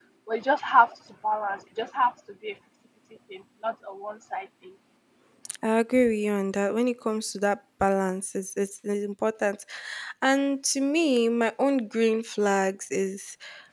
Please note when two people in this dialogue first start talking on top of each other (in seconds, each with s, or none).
none